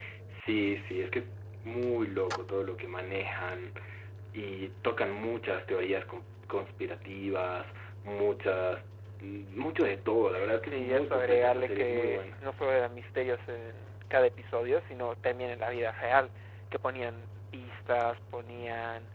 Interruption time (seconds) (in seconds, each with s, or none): 10.6 s